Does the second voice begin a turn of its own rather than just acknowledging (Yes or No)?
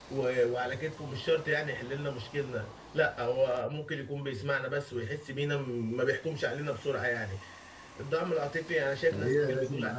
Yes